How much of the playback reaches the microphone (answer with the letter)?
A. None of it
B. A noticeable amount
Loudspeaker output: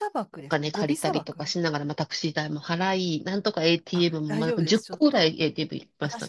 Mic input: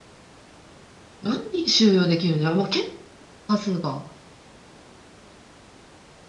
A